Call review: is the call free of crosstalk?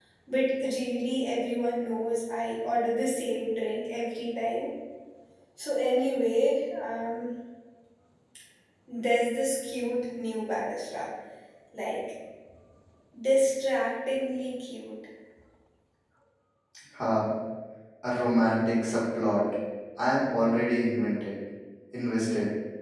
Yes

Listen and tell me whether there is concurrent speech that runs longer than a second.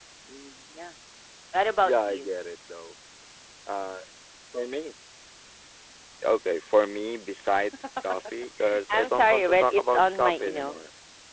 Yes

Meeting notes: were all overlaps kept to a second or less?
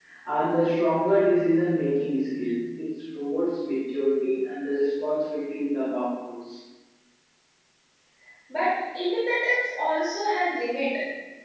Yes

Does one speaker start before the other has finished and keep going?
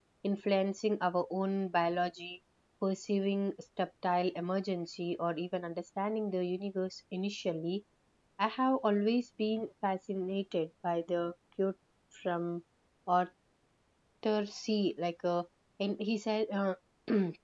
No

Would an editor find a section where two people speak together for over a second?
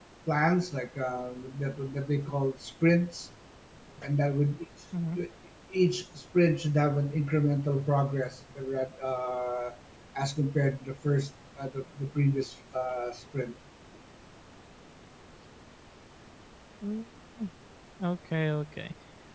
No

